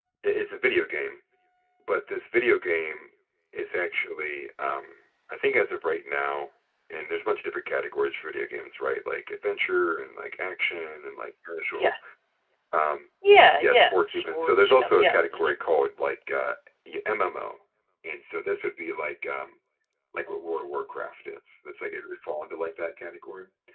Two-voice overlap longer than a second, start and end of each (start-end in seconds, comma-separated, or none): 13.6-15.5